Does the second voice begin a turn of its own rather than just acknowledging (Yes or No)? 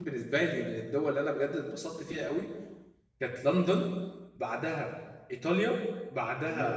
No